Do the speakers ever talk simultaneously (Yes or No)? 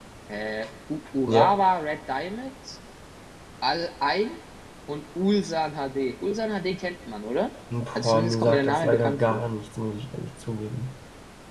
Yes